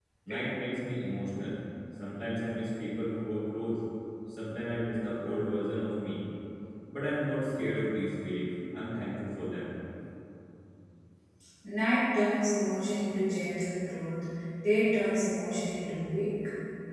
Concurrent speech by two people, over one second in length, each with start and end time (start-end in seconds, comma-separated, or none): none